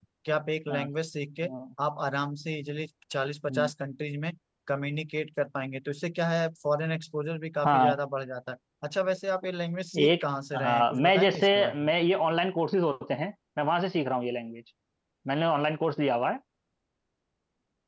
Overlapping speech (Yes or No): Yes